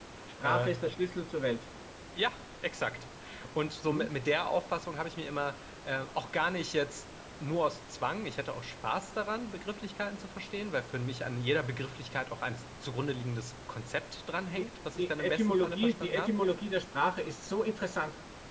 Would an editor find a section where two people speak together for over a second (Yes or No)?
Yes